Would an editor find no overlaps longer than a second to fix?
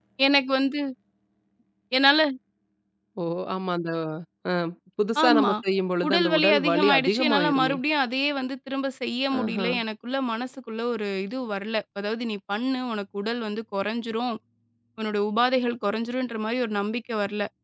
No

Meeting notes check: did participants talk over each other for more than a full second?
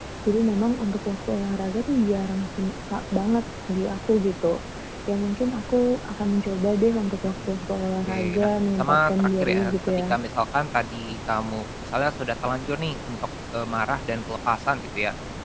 Yes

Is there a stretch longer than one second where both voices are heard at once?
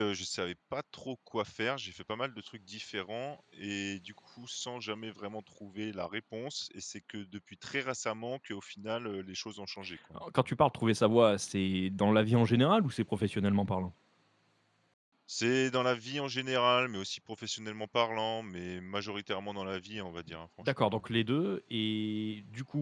No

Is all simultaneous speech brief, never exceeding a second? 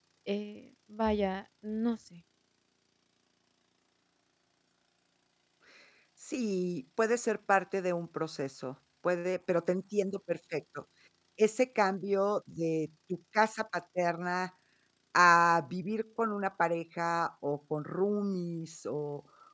Yes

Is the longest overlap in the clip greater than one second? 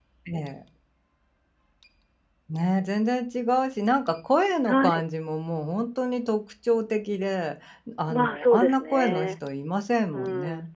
Yes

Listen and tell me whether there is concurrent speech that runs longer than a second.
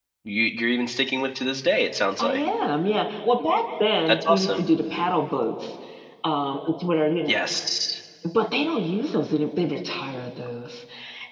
No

